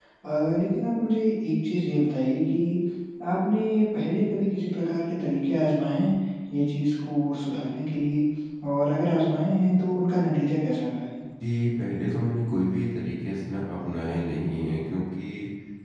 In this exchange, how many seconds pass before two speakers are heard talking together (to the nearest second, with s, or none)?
none